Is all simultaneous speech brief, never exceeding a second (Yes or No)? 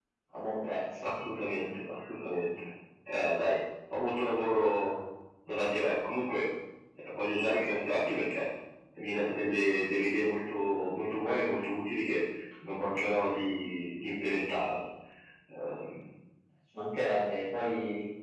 Yes